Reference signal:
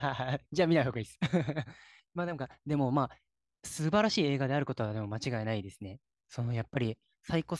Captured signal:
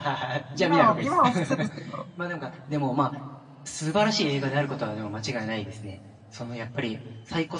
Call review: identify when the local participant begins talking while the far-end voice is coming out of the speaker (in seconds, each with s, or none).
0.6 s